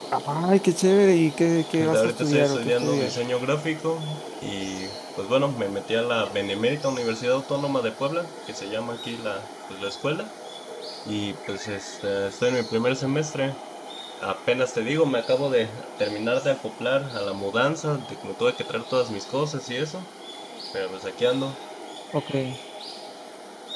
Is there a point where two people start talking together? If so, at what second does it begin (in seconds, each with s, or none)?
1.8 s